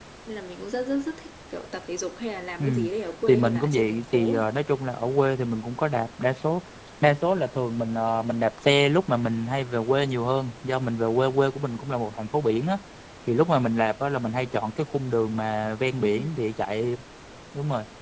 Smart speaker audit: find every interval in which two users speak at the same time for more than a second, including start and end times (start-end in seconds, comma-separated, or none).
3.3-4.5